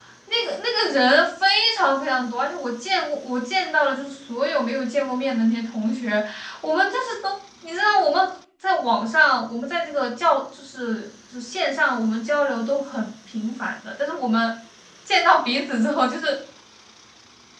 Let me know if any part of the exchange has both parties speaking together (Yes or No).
No